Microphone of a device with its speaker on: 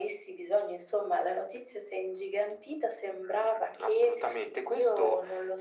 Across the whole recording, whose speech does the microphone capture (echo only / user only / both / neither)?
echo only